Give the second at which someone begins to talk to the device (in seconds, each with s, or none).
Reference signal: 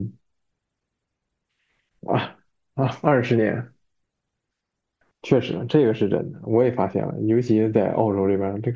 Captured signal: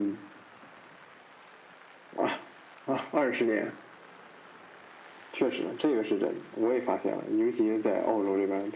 none